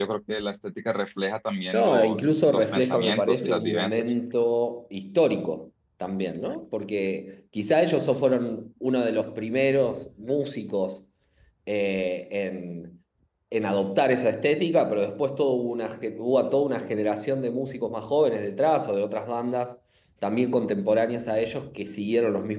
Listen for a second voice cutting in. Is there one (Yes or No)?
Yes